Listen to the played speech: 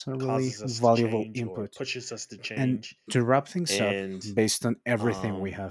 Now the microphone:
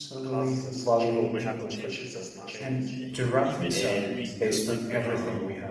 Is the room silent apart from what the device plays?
No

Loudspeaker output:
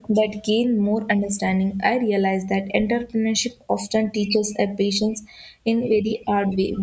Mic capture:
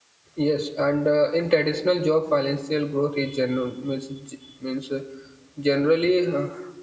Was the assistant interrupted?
Yes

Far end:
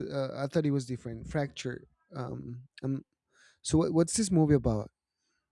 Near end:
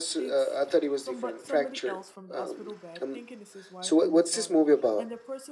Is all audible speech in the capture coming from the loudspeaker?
No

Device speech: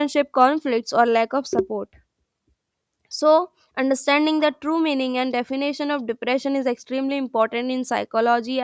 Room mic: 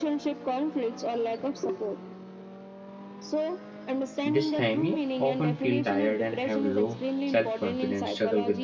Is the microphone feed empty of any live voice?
No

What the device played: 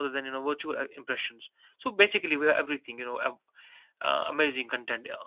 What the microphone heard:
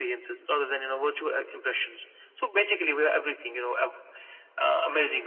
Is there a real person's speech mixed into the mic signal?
No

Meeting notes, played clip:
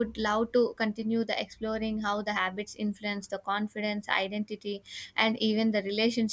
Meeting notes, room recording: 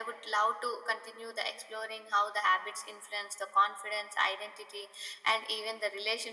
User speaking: No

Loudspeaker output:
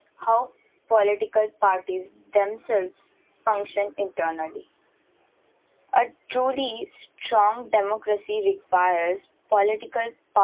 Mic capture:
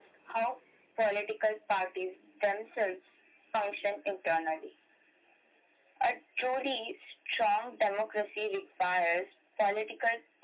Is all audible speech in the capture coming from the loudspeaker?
Yes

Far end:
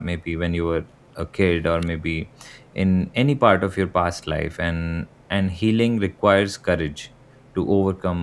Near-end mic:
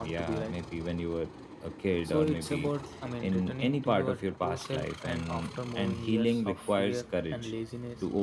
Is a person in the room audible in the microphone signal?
Yes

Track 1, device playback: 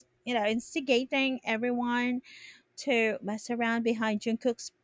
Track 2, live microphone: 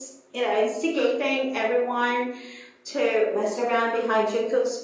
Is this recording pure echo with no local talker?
Yes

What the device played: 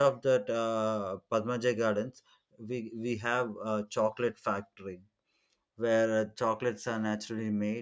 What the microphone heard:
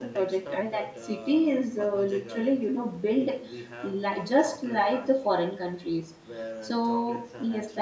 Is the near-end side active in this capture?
Yes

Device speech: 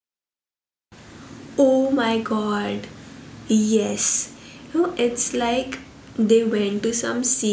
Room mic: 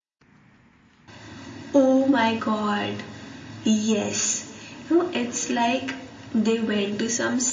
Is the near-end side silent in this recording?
Yes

